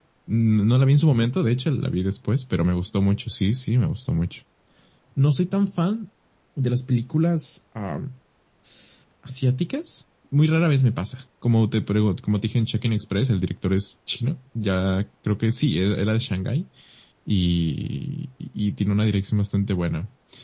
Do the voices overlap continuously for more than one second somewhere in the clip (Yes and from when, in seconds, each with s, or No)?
No